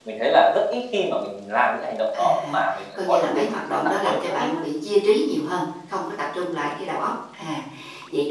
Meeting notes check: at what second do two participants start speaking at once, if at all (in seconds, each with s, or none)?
2.1 s